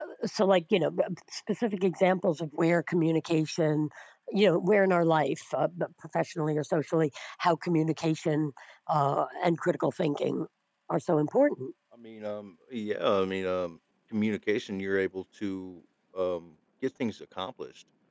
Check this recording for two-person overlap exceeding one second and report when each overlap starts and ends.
none

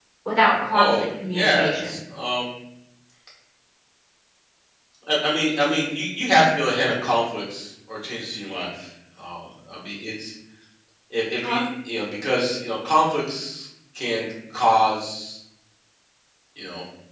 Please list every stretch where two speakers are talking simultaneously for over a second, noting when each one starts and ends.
0.7-2.0

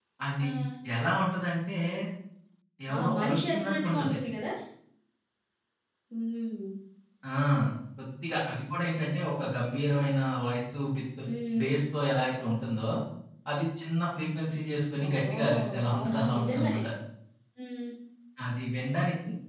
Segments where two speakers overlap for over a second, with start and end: 3.0-4.2, 15.1-16.8

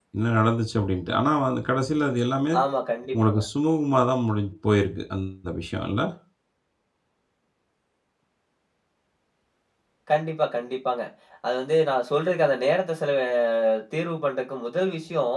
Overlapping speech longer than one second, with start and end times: none

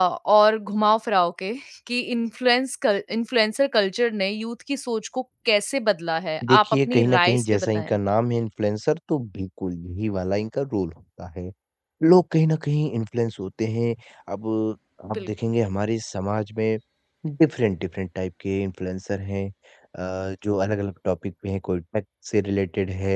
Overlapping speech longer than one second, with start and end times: 6.5-8.0

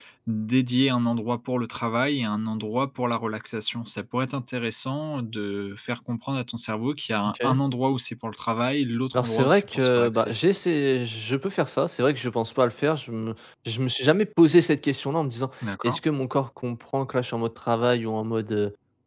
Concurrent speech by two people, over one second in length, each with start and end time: 9.1-10.3

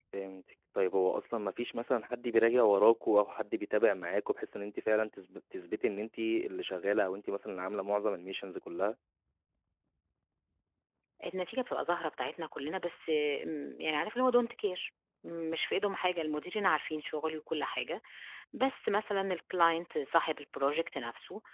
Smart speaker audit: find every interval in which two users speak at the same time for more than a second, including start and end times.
none

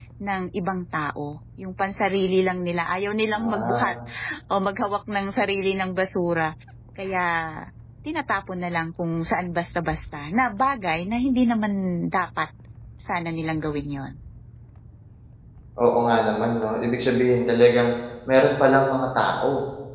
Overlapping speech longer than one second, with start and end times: none

